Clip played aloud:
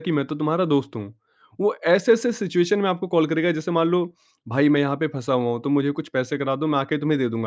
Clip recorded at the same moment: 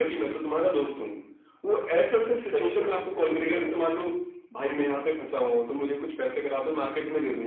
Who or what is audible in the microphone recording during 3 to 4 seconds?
both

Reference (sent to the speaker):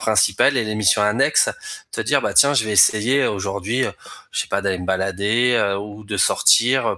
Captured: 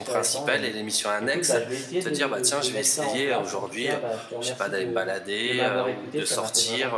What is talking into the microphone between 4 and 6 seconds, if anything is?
both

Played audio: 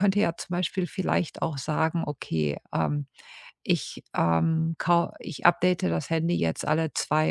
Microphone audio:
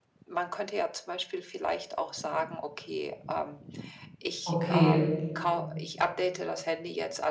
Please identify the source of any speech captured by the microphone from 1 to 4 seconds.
echo only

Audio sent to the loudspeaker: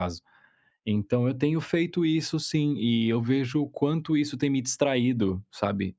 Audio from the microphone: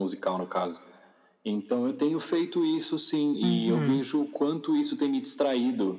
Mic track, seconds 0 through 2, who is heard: echo only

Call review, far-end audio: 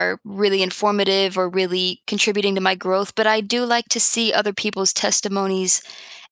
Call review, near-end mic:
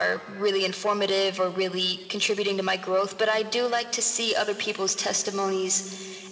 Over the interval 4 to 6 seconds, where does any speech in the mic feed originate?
echo only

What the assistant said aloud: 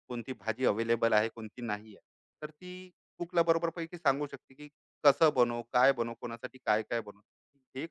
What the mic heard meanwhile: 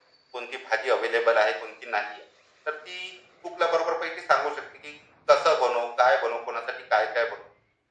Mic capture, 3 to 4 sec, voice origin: echo only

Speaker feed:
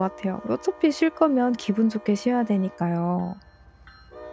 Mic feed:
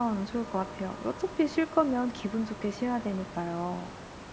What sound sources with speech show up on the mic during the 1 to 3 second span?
echo only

